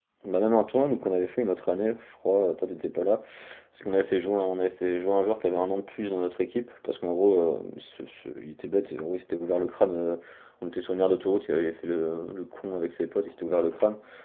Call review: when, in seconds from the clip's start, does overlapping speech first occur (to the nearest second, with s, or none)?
none